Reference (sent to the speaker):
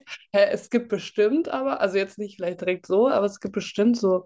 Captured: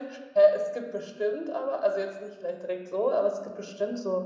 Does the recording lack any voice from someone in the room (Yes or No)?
Yes